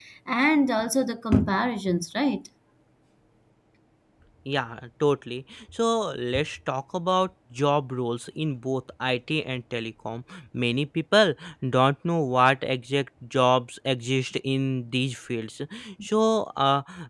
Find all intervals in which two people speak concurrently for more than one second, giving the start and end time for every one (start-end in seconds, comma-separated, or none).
none